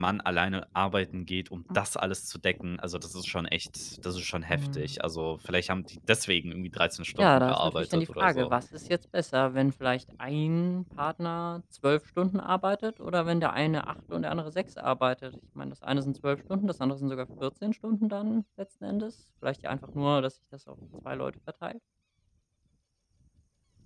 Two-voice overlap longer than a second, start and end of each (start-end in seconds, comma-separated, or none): 7.2-8.6